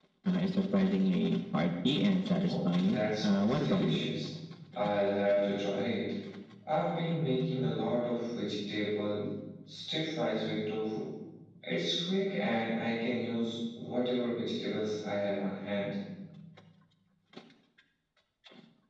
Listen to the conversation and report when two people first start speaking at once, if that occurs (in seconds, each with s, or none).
2.4 s